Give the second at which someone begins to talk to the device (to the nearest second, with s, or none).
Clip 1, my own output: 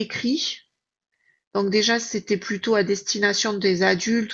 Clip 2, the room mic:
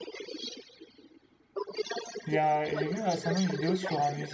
2 s